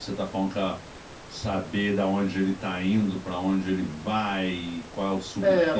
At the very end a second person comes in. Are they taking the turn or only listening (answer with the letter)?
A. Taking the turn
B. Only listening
A